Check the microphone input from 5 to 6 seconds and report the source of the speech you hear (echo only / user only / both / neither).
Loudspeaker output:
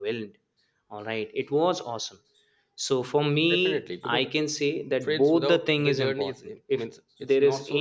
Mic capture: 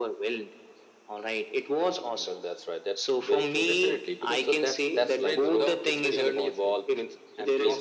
both